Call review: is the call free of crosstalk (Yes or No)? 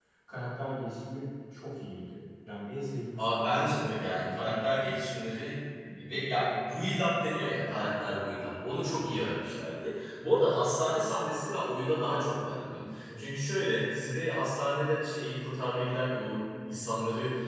No